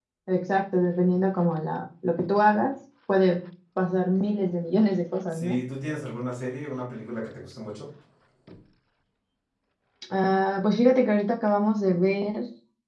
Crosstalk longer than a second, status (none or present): none